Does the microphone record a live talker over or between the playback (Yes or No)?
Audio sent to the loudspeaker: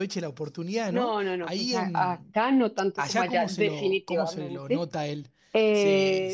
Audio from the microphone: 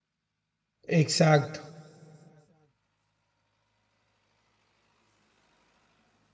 Yes